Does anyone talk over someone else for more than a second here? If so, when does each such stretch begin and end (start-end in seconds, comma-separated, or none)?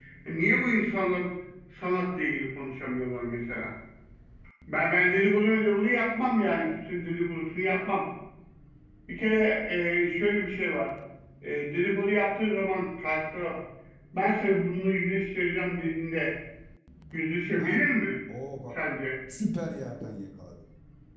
none